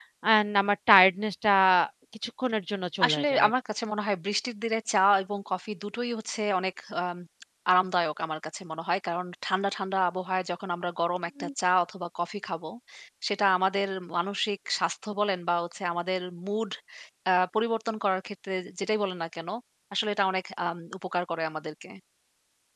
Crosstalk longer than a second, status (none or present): none